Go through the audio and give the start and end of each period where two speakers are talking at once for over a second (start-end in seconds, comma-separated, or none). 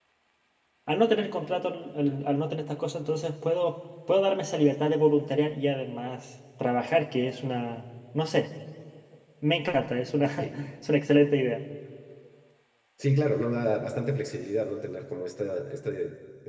none